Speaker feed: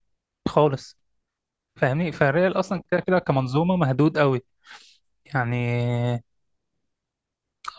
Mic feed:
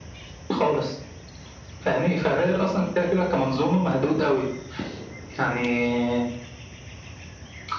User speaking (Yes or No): No